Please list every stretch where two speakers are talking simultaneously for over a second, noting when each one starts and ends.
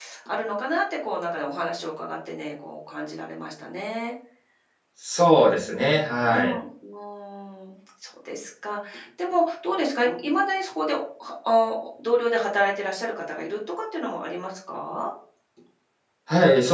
5.4-6.6

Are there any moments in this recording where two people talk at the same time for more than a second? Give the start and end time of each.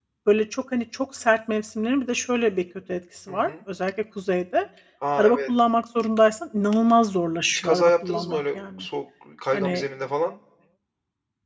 7.5-8.8

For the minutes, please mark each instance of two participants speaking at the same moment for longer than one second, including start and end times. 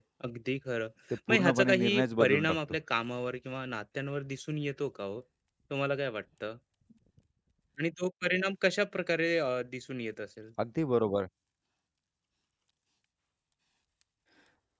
1.3-2.6

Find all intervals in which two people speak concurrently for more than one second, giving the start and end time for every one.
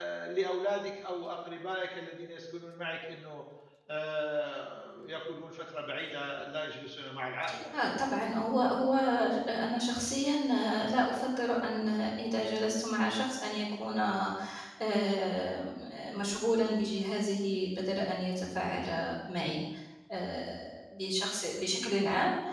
none

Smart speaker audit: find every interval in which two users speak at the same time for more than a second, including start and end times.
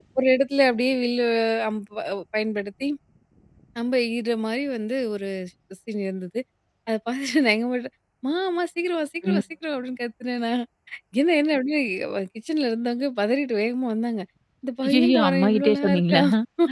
14.9-16.2

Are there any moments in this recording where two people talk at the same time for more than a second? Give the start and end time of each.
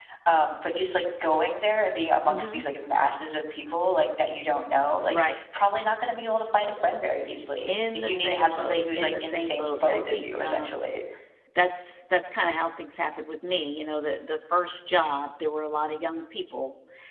7.7-10.8

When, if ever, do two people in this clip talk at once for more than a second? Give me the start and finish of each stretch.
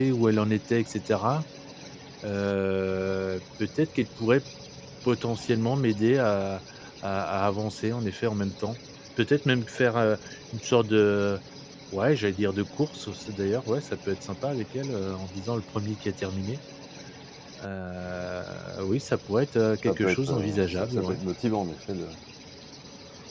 19.9-21.2

